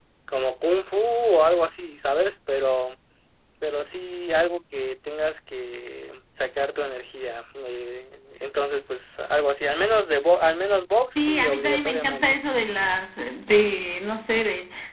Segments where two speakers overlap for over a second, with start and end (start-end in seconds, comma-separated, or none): 11.2-12.4